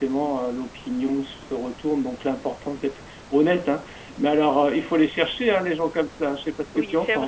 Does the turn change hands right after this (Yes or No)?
Yes